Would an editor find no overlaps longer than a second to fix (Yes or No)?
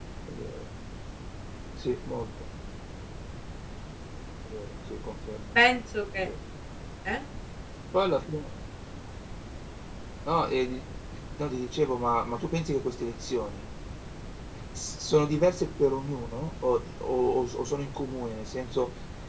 Yes